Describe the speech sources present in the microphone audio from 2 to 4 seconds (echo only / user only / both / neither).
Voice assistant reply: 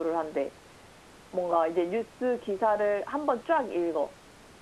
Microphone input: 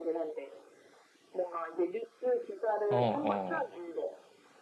both